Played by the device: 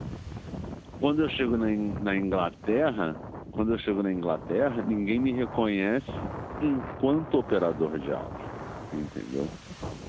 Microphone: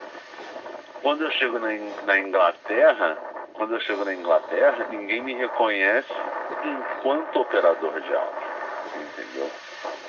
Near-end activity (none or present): none